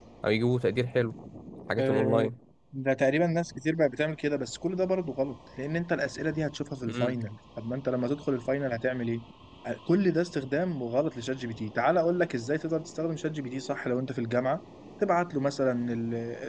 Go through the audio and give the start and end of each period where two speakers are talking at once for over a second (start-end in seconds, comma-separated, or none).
none